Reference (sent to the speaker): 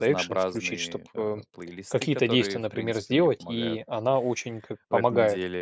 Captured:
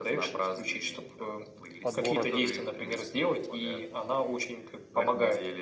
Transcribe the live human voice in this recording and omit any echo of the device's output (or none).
подборок.